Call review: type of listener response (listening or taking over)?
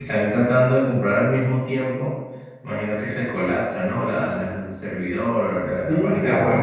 taking over